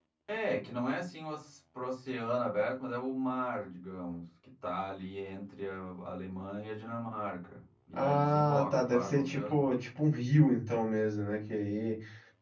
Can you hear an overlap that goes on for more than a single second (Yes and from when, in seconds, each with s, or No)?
Yes, from 7.9 s